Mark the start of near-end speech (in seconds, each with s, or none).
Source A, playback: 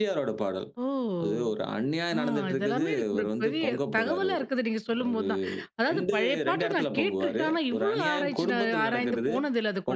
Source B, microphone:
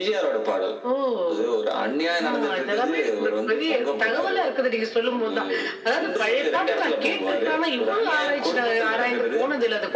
none